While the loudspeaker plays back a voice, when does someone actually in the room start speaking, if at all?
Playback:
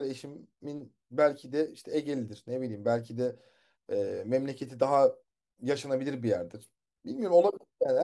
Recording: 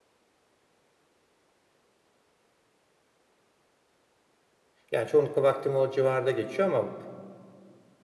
4.9 s

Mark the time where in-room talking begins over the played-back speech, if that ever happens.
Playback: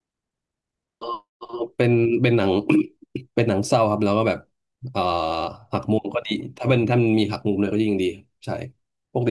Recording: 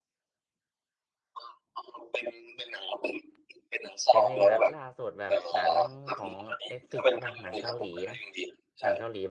4.1 s

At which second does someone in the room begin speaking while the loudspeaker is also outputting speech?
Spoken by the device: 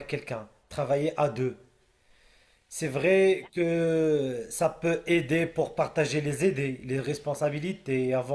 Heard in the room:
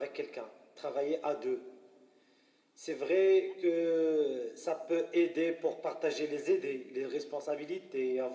none

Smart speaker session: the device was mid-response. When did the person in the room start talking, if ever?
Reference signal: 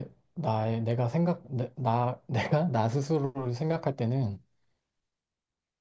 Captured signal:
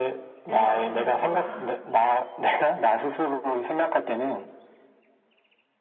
0.5 s

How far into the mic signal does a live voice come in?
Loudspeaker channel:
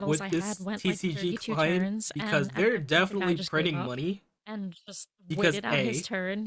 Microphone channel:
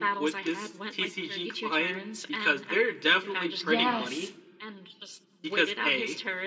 3.6 s

